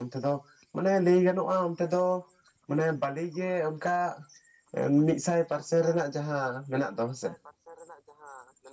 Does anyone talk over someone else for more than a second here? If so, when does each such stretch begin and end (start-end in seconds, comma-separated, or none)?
none